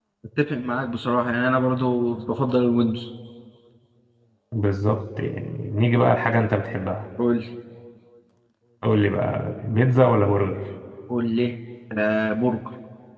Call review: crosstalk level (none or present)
none